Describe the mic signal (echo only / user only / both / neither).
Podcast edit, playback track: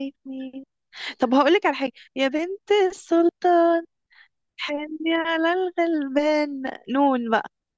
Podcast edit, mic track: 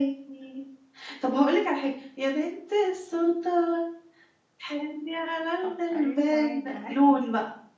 both